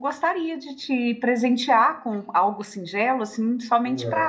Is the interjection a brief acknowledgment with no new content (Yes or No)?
No